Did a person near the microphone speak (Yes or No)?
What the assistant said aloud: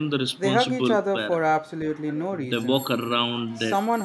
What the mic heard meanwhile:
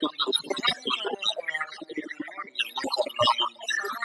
No